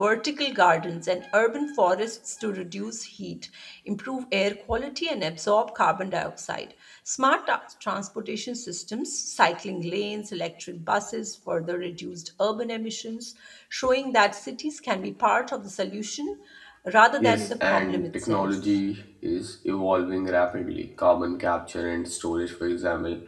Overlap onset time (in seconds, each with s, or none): 17.2 s